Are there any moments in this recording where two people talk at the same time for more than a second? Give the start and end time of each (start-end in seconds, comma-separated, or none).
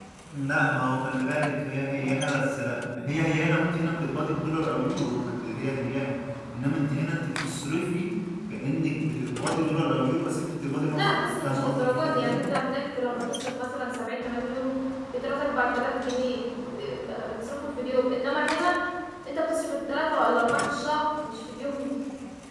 10.8-12.4